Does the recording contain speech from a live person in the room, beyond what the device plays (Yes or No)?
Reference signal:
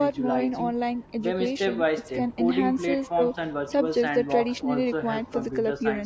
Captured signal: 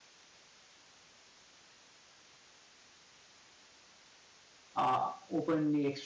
Yes